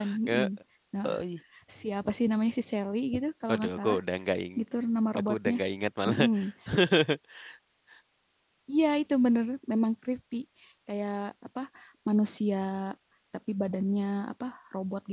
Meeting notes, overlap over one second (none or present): none